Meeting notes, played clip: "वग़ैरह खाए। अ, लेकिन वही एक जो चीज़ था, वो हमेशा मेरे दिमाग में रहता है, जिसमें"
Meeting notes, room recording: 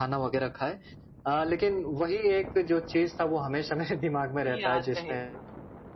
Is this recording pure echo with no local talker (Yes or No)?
No